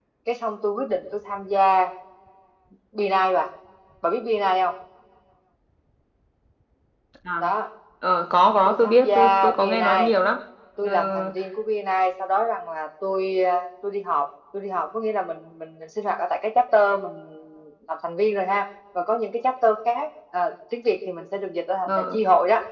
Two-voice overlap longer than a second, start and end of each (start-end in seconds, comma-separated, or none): 8.7-10.1